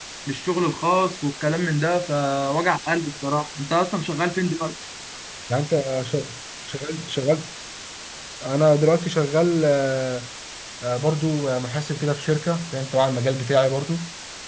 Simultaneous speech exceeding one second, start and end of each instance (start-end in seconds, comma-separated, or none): none